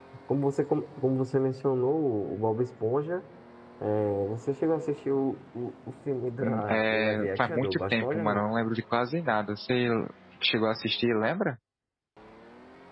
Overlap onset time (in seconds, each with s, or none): 6.4 s